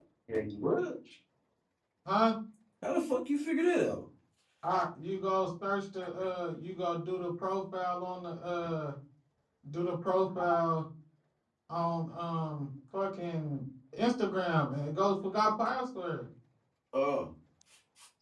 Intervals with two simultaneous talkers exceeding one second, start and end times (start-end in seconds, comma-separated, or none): none